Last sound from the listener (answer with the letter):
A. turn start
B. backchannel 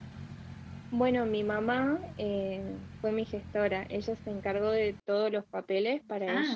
B